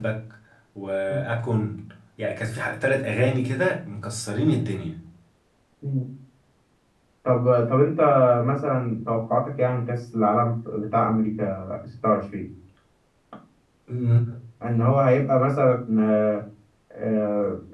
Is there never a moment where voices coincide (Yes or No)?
Yes